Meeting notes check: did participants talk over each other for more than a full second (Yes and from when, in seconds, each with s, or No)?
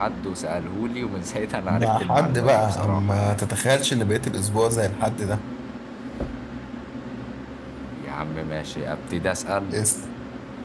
Yes, from 1.7 s